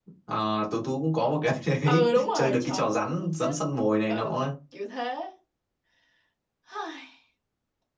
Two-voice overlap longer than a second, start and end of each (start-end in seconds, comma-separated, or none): 1.9-3.5